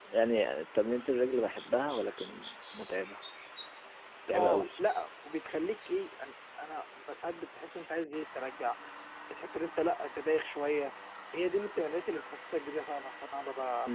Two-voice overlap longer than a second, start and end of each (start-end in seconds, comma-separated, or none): none